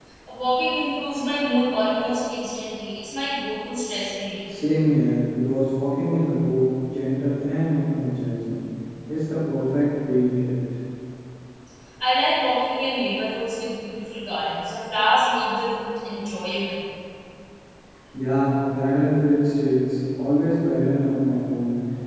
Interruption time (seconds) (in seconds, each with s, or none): none